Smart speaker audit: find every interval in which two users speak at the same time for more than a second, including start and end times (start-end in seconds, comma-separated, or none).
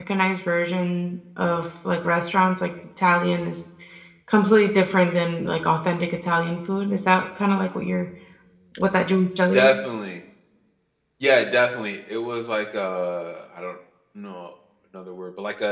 none